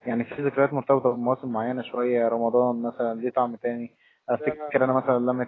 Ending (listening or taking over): listening